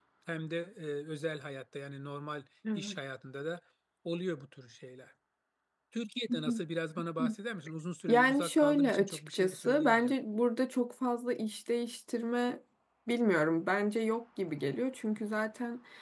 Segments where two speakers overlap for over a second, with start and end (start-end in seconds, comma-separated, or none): 8.1-10.1